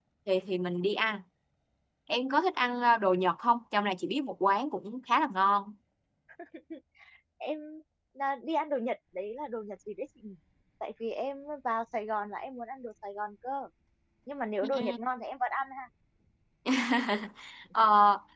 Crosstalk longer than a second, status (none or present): none